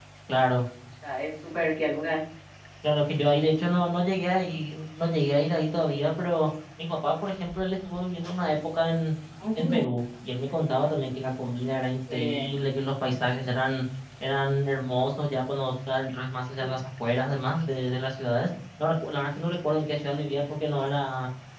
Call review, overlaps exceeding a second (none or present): none